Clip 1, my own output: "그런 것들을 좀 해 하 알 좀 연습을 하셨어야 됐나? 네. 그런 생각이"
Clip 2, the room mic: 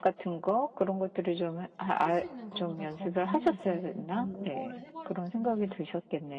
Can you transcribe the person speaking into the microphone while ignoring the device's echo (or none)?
제가 할 수 있는 거보다 더 많이 이제 너무 오버를 해 버렸더니